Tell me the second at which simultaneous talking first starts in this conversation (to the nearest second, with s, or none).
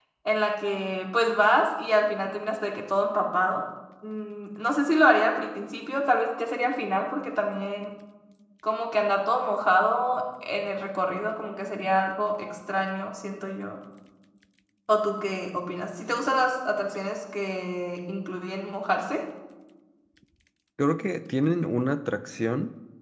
none